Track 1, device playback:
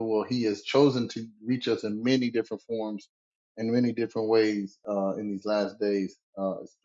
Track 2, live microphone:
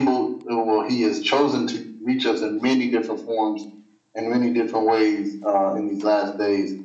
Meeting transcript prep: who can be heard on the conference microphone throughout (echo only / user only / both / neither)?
echo only